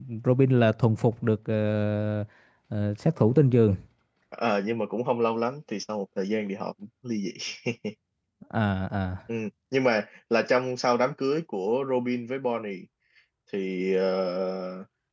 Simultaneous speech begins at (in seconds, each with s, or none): none